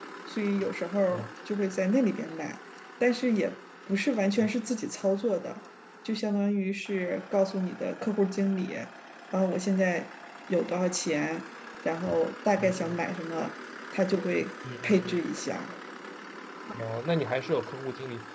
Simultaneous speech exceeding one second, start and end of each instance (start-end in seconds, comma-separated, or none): none